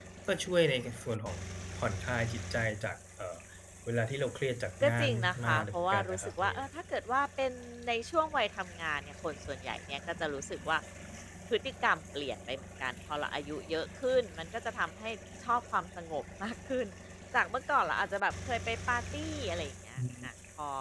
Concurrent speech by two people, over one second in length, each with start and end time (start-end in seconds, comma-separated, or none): 4.8-6.6